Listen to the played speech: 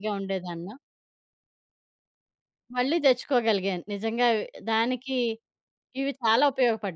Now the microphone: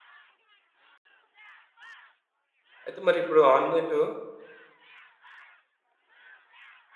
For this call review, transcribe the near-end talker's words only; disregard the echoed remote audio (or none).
అయితే మరిప్పుడు ఆన్‌లైన్‌లో